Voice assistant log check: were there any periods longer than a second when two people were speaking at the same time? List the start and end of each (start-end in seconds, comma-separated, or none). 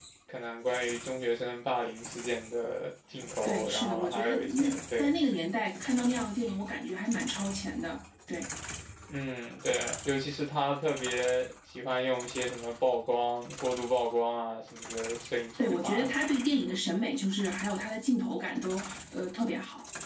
3.4-5.1